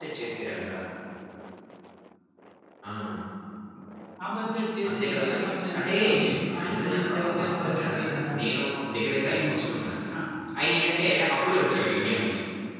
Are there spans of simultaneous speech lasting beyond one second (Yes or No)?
Yes